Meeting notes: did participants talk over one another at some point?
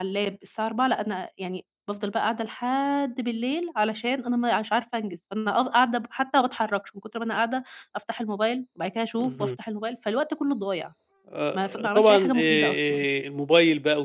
Yes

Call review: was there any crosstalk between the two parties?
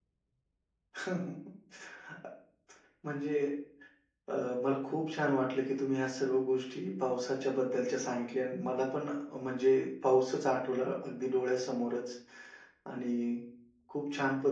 No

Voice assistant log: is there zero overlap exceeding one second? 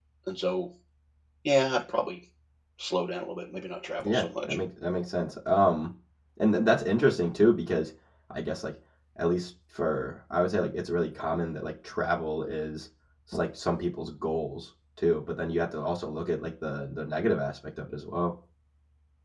Yes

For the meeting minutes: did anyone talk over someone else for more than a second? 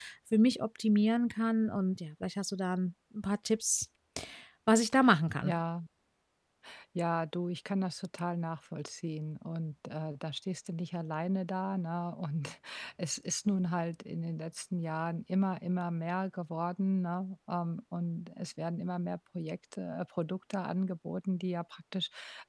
No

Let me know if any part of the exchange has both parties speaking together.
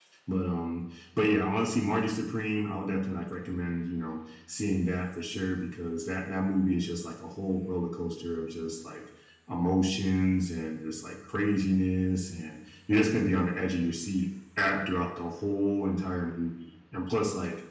No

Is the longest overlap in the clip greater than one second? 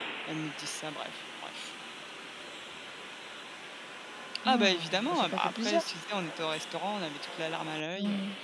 Yes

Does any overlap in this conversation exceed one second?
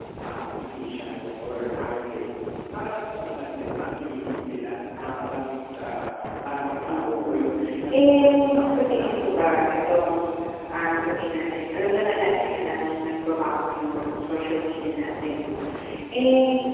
Yes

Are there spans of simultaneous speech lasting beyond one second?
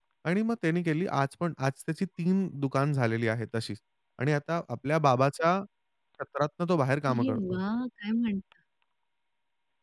No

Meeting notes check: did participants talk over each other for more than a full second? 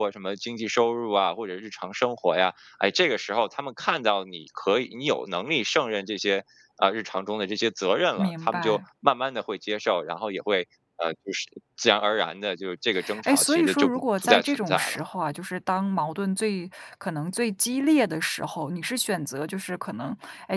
Yes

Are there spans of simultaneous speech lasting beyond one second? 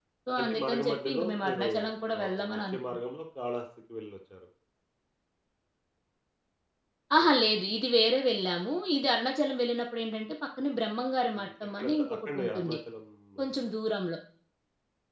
Yes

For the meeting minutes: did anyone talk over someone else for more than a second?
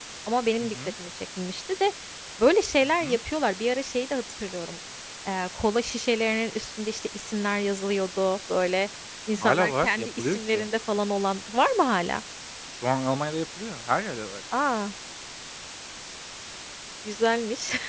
Yes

